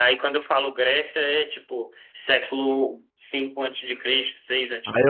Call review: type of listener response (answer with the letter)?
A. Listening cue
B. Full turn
B